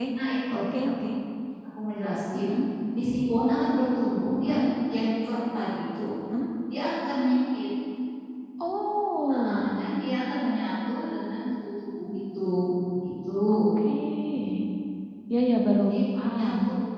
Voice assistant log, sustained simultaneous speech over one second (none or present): none